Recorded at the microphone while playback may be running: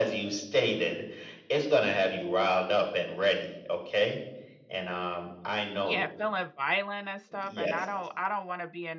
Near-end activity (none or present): present